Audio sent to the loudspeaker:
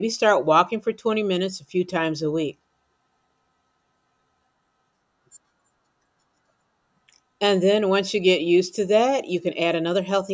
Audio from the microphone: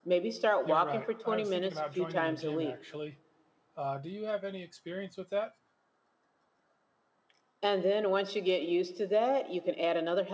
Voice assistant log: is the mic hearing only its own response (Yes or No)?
No